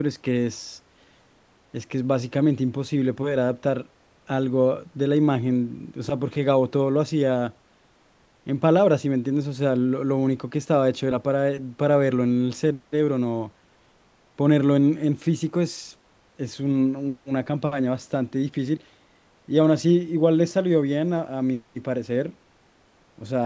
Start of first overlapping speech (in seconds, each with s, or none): none